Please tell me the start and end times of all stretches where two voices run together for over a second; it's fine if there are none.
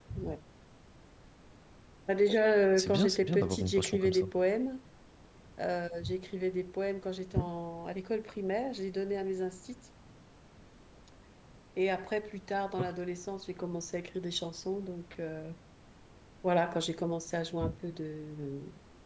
2.8-4.2

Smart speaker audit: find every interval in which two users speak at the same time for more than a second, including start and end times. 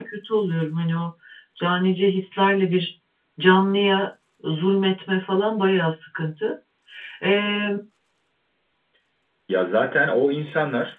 none

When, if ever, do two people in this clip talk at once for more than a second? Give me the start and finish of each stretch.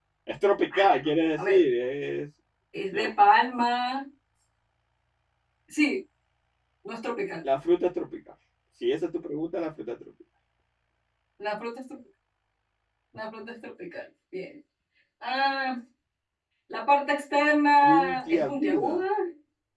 17.8-19.0

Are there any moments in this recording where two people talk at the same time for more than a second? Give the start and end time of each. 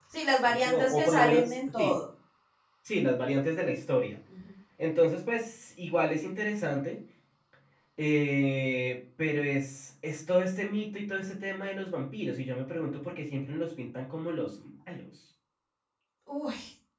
0.6-1.9

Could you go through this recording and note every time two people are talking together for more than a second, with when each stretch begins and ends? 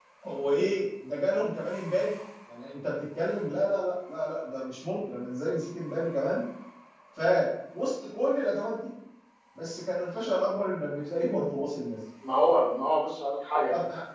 none

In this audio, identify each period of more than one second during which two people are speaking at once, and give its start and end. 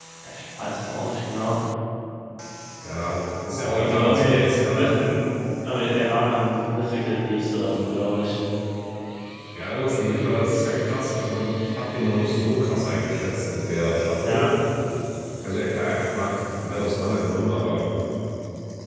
3.8-5.0

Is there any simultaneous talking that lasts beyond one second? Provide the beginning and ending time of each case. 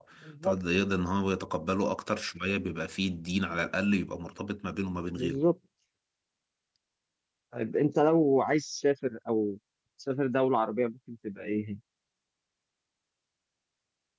none

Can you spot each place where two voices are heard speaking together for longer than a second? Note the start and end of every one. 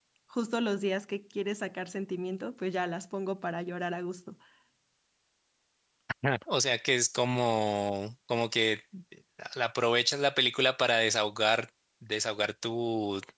none

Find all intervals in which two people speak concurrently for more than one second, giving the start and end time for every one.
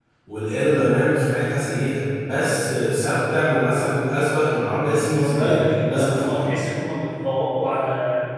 4.5-6.5

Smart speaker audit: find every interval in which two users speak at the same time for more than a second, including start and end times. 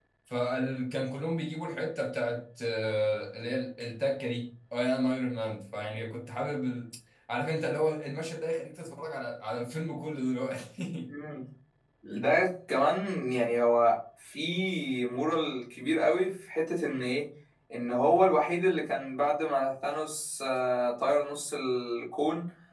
none

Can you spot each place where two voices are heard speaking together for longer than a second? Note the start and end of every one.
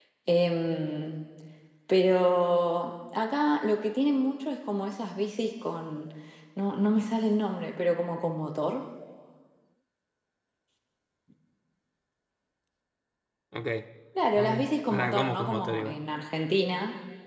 14.3-16.0

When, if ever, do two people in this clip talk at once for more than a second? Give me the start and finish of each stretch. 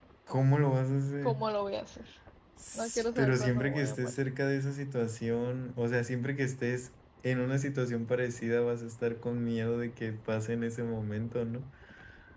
2.8-4.1

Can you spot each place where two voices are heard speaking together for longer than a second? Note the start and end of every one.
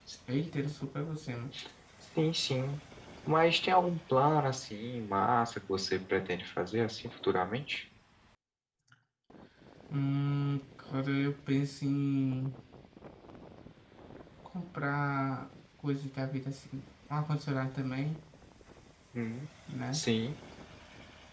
none

